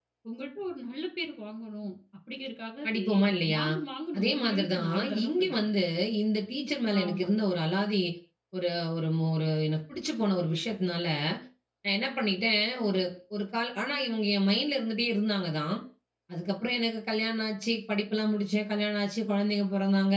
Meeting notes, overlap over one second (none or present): present